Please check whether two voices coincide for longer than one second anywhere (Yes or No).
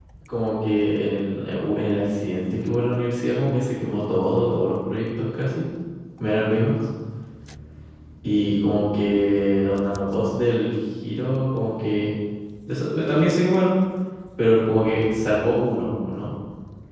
No